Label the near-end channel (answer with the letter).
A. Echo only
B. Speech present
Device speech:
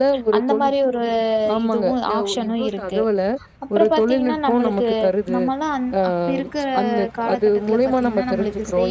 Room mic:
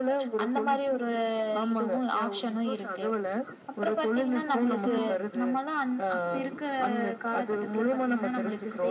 B